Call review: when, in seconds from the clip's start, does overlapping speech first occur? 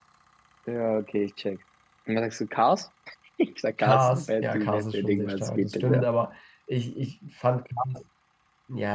3.8 s

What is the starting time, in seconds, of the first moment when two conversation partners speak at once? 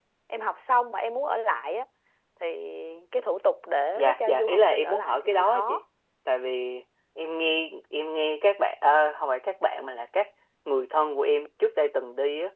4.0 s

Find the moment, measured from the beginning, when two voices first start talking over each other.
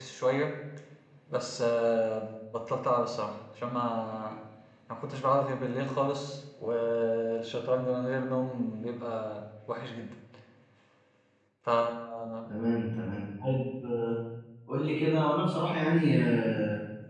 none

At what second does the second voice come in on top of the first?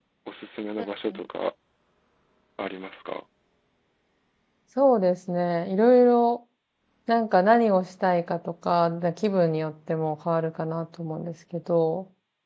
none

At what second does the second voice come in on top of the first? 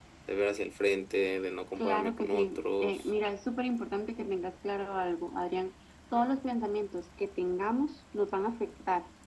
1.8 s

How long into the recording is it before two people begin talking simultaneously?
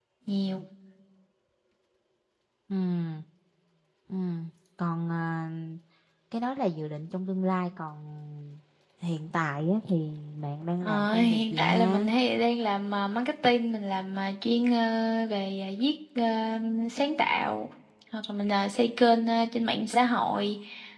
10.8 s

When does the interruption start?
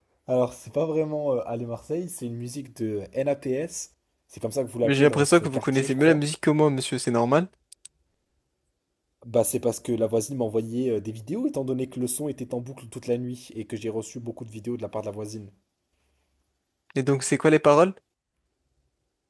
4.8 s

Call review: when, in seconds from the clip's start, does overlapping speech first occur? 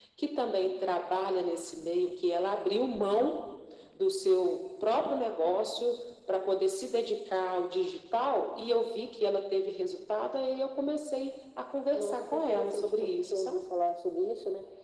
11.9 s

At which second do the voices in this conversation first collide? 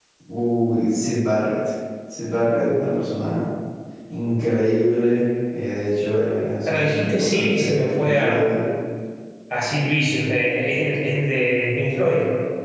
6.7 s

